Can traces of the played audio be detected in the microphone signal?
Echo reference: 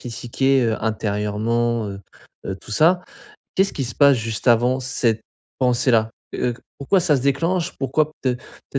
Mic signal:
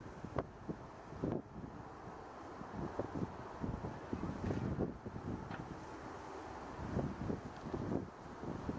No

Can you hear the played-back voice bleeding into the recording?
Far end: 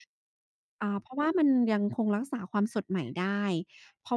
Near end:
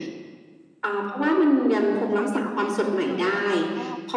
Yes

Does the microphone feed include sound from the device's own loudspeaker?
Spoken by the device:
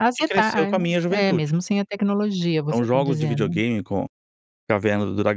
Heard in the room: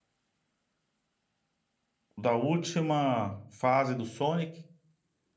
No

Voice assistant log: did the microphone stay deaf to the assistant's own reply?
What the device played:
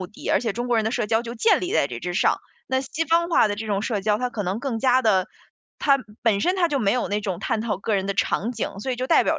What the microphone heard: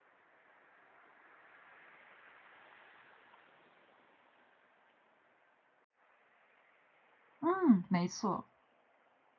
Yes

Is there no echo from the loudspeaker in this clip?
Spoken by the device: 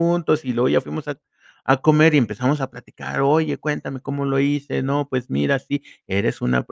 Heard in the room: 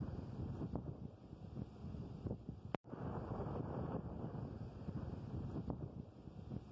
Yes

